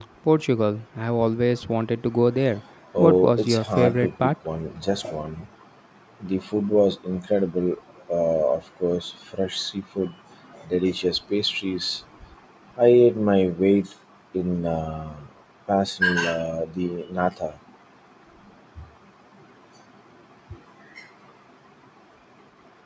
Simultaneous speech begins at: 2.9 s

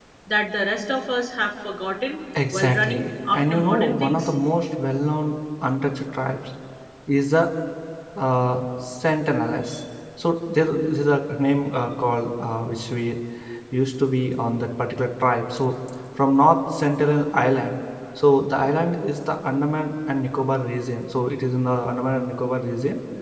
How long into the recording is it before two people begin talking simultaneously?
2.4 s

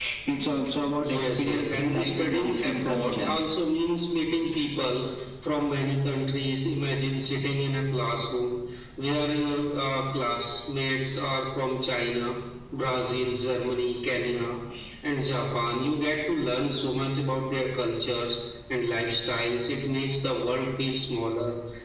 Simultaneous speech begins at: 1.0 s

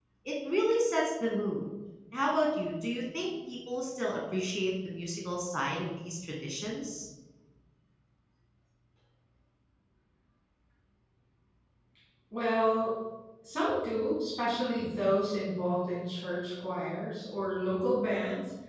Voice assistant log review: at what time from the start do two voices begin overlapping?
none

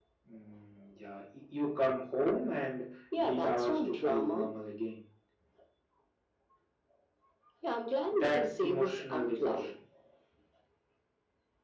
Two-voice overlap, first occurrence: 3.2 s

